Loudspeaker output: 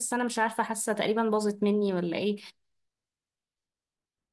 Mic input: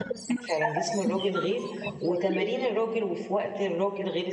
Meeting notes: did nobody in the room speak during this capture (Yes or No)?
No